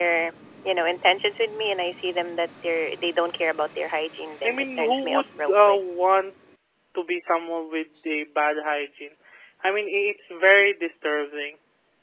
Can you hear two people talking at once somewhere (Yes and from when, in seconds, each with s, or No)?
Yes, from 4.4 s